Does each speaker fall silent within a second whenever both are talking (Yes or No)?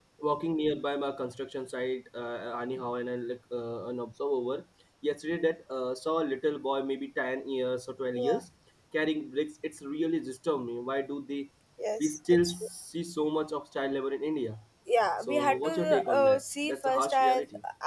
No